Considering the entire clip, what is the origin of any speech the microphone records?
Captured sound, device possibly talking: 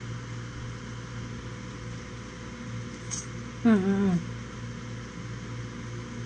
user only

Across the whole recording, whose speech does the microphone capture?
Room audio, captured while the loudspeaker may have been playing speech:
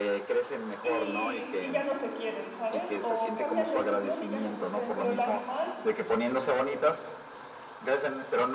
both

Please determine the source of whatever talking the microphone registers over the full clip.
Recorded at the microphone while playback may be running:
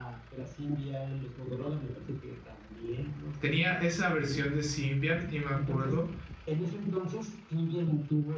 both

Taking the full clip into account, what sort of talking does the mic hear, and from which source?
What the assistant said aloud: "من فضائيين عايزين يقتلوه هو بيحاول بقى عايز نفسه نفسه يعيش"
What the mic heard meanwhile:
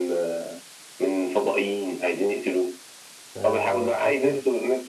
both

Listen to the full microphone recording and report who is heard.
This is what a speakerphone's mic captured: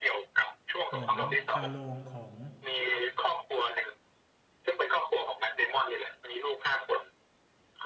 both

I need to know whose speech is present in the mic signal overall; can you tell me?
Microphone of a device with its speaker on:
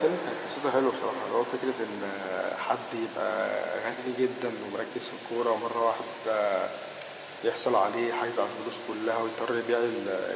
echo only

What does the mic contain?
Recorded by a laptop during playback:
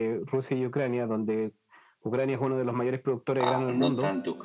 both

